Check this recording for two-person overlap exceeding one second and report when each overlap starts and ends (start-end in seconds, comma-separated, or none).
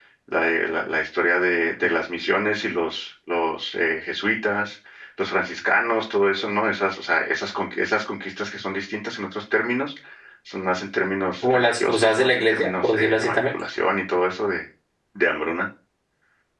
11.4-13.4